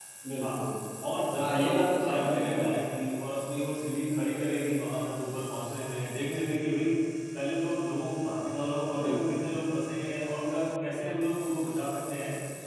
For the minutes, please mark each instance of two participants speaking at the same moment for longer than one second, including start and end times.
1.4-2.7

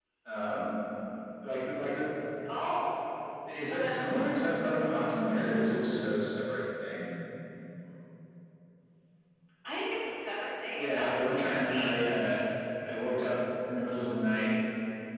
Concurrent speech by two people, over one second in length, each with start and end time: 10.8-12.0

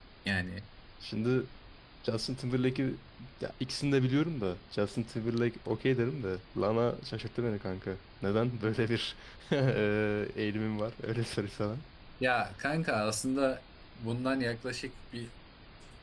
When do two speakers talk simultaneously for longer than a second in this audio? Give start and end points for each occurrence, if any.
none

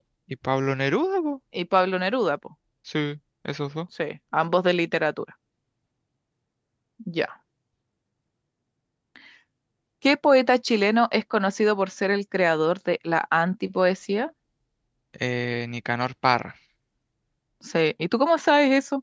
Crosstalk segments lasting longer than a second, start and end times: none

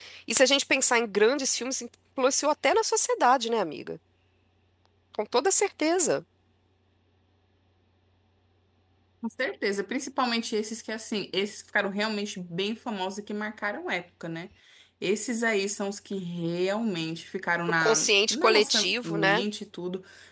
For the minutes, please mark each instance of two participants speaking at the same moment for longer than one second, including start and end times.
17.8-19.4

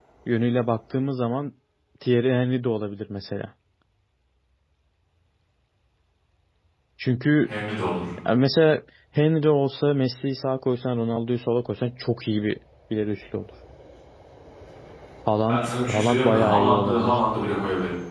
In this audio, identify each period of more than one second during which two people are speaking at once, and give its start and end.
15.5-17.2

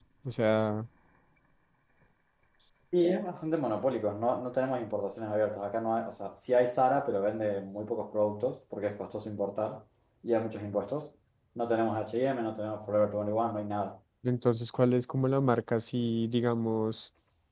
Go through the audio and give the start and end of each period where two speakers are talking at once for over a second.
none

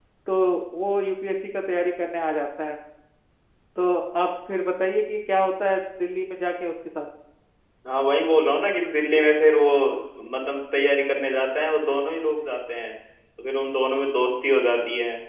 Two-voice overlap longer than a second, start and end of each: none

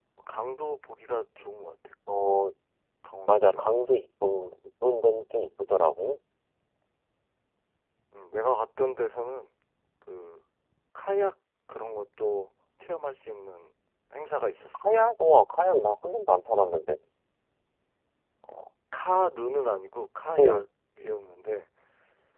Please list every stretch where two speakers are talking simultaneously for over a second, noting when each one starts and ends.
none

